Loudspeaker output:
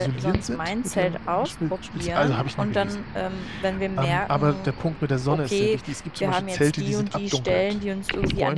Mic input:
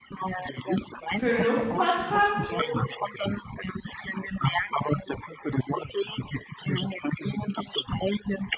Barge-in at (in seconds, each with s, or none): 1.1 s